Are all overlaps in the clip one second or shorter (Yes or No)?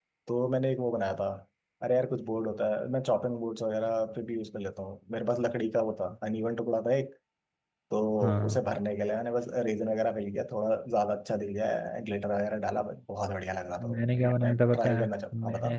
No